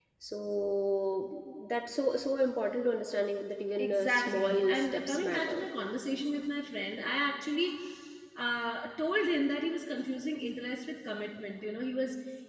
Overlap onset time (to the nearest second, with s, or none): 4 s